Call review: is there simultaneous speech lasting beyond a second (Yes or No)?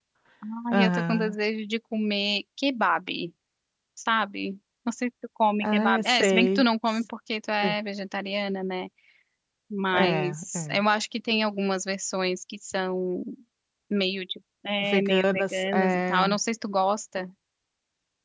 Yes